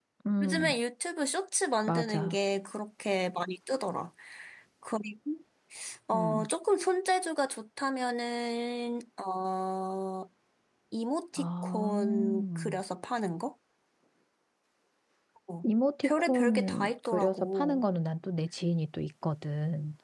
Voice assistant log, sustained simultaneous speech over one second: present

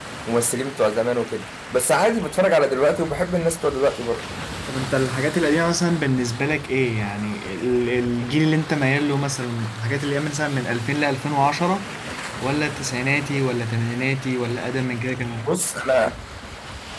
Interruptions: none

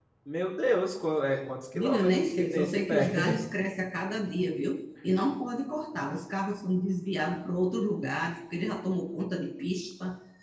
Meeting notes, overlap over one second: present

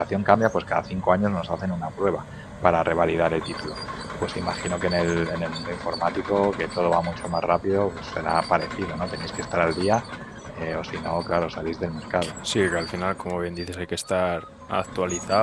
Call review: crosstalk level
none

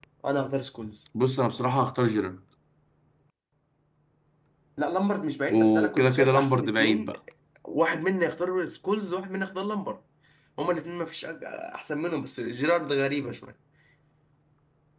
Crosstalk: present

